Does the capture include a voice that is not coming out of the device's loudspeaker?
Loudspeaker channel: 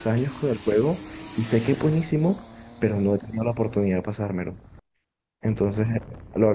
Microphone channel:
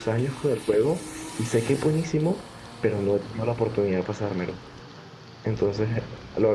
No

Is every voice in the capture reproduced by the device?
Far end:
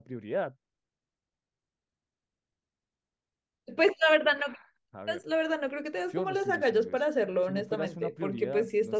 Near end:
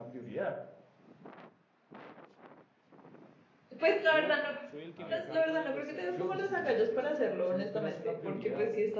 No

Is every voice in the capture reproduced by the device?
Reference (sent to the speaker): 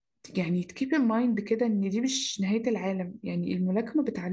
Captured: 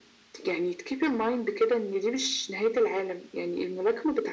Yes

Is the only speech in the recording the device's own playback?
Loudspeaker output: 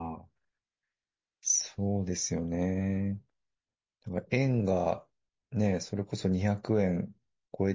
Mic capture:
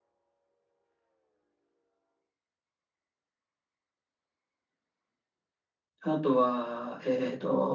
No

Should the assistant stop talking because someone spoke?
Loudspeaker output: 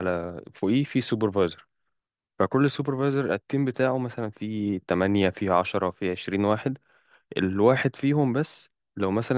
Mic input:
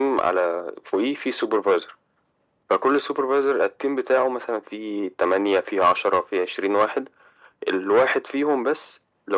No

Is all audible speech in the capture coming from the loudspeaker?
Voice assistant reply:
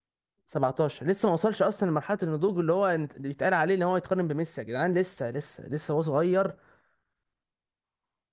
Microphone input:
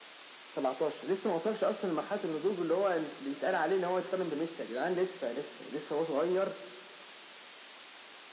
Yes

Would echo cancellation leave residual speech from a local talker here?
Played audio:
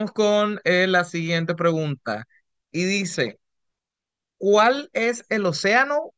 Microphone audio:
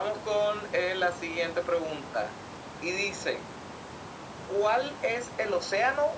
No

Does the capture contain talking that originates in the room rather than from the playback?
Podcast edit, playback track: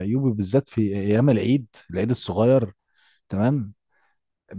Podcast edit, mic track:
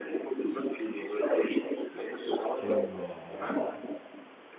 Yes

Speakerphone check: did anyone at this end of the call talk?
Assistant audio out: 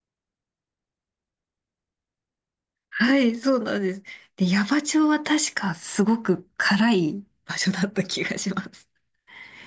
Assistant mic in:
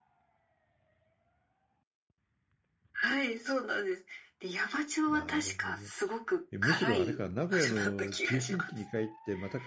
Yes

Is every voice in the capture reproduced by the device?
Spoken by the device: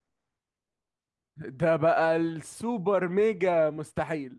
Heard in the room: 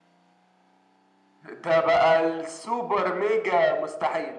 Yes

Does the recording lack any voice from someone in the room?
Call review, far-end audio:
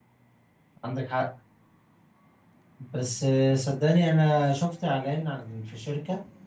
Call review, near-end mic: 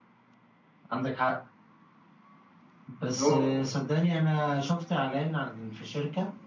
No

